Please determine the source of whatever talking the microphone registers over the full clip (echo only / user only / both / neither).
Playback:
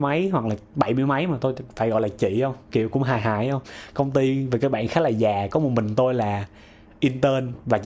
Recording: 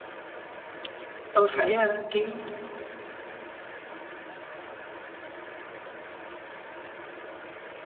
user only